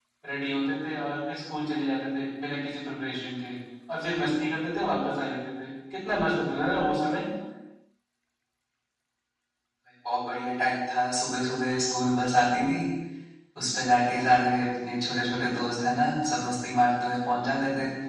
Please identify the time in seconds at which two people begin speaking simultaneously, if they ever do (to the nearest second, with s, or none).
none